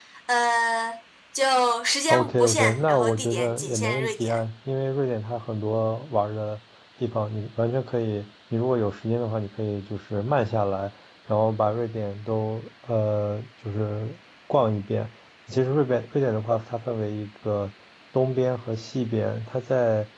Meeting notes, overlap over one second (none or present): present